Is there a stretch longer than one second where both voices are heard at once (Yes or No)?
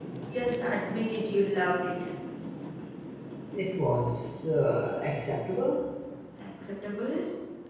No